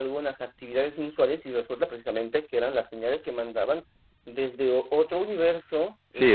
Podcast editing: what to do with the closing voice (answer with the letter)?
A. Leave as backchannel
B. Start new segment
A